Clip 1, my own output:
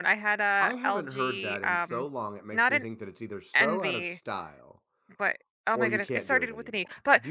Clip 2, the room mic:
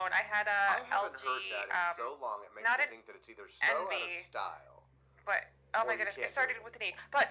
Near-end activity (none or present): none